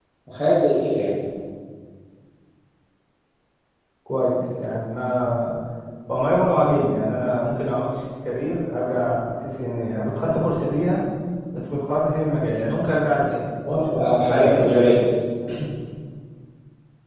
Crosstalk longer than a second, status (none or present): present